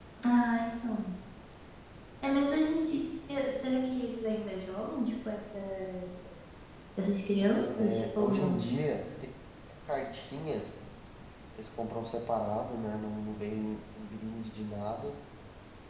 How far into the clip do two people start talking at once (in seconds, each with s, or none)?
7.3 s